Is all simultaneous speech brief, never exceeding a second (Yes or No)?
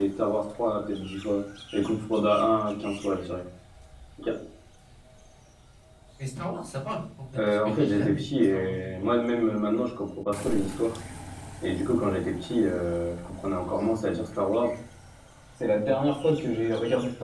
No